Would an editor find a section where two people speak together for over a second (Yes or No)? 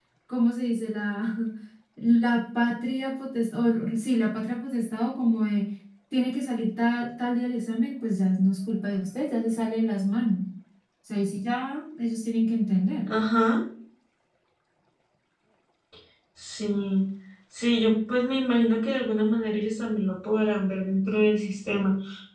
No